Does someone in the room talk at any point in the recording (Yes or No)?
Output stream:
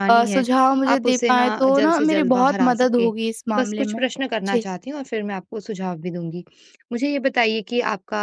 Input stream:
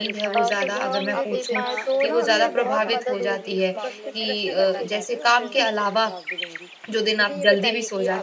Yes